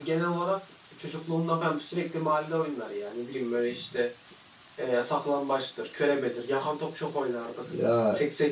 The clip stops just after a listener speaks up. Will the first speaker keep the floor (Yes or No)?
Yes